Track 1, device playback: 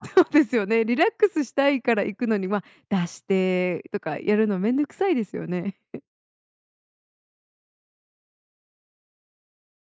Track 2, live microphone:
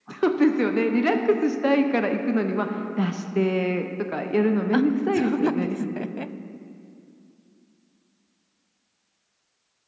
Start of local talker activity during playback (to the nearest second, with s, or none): 5 s